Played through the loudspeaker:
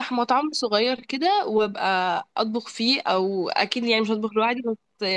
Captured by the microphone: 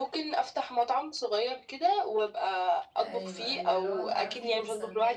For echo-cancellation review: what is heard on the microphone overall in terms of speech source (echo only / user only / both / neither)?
both